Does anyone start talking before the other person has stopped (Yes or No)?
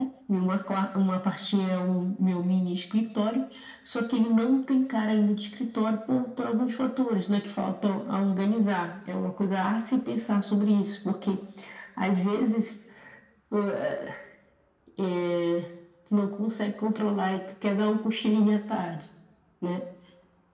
No